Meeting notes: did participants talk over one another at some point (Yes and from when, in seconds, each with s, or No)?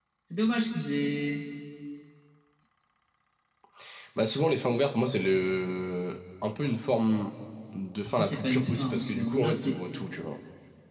Yes, from 8.1 s